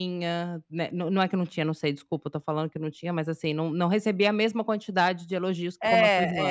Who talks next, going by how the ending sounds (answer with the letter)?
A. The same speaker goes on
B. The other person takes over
B